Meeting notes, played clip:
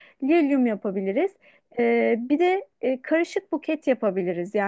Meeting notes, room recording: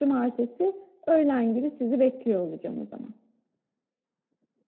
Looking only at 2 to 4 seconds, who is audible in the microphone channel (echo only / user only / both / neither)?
user only